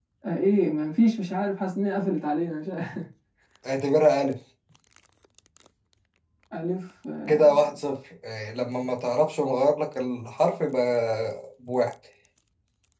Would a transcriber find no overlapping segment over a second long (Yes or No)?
Yes